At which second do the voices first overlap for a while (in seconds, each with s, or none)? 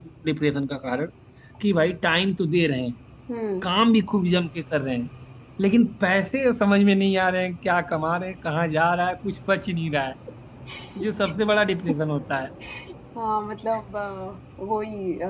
none